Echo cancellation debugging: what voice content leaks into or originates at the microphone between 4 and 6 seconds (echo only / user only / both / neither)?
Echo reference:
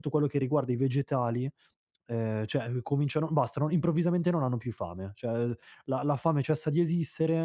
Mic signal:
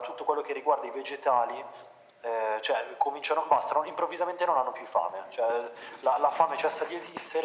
echo only